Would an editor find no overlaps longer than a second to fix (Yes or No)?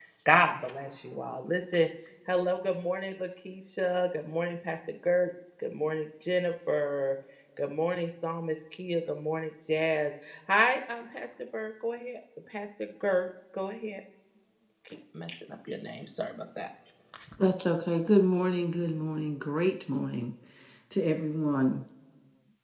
Yes